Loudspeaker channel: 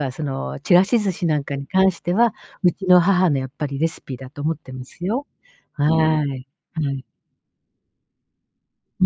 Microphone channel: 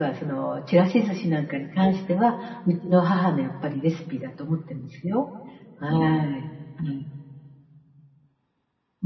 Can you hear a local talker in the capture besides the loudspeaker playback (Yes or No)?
No